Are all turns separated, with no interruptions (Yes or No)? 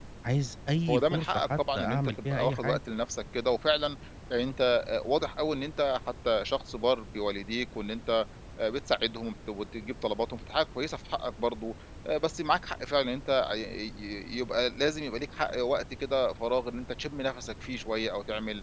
No